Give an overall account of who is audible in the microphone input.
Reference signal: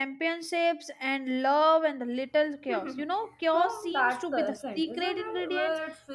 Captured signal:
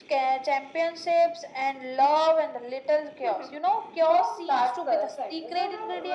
echo only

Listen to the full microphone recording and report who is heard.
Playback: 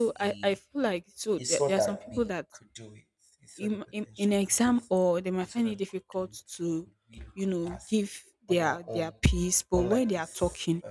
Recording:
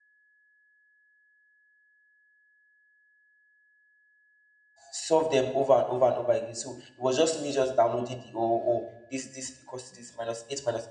user only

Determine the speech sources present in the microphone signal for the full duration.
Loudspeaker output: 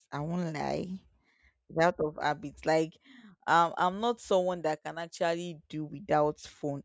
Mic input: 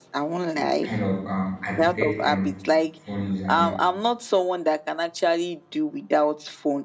both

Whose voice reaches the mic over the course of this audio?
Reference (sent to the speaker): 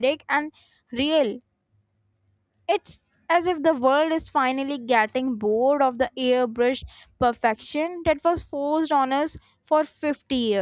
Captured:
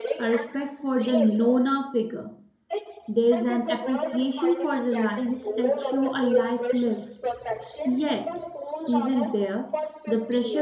both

